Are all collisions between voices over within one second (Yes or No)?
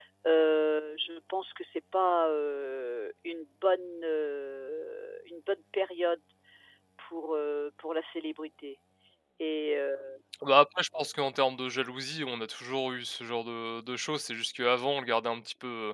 Yes